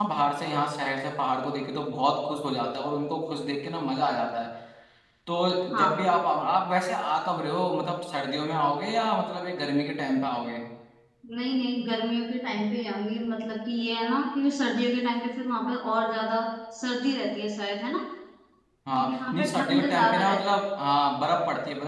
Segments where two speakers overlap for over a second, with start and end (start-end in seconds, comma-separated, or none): 19.0-20.4